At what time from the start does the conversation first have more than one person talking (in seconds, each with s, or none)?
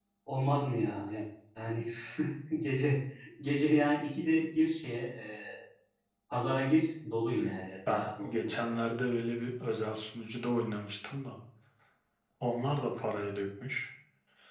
7.3 s